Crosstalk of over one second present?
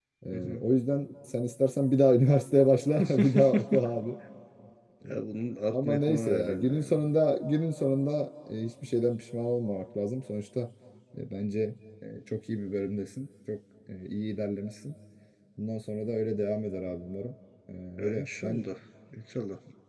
Yes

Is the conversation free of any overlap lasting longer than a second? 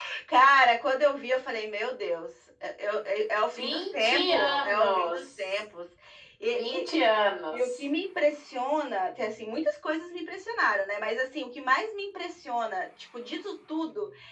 No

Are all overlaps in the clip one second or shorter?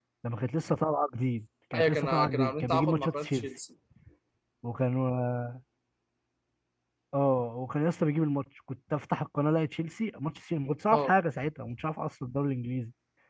No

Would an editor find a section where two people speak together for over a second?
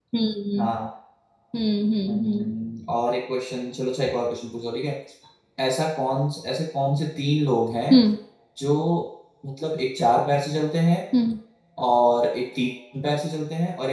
No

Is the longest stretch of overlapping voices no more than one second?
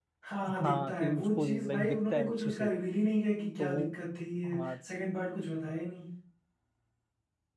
No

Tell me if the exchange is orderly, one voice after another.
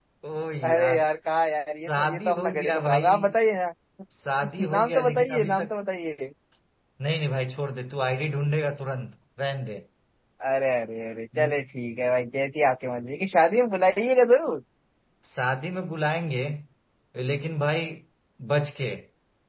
No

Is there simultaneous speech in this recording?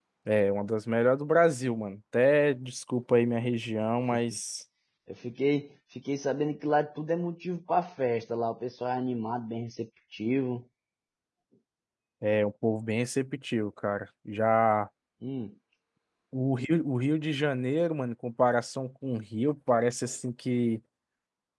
No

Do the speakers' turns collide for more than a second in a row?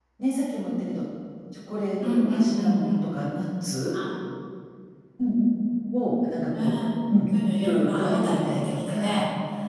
Yes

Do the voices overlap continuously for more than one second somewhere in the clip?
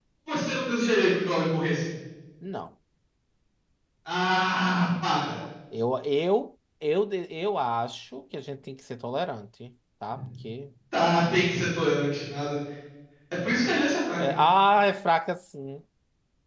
No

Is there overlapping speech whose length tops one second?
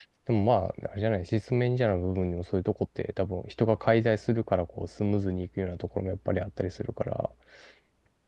No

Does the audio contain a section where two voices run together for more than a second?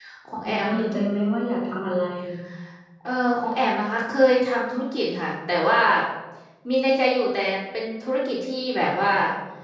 No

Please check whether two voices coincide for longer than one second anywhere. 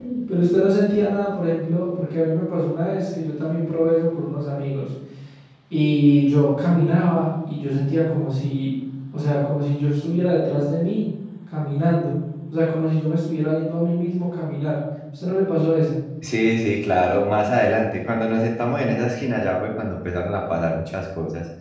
No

